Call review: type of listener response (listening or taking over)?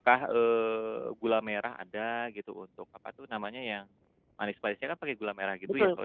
taking over